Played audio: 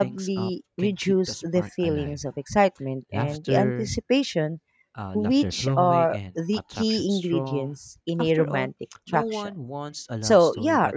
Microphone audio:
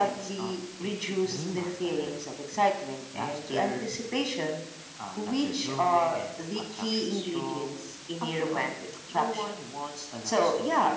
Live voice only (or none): move